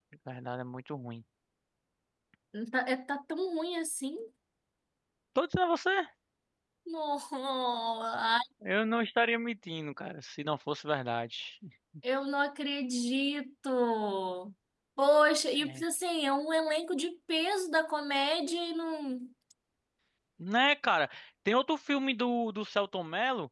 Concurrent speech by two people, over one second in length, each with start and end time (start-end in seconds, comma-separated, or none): none